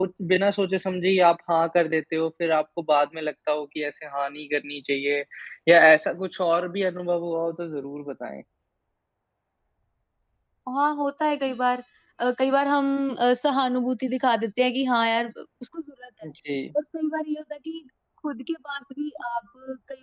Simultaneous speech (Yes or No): No